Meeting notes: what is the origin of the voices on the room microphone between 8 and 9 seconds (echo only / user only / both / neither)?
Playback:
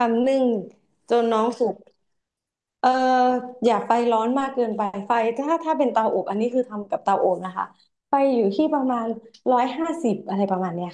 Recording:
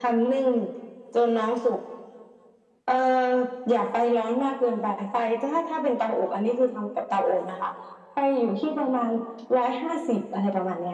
echo only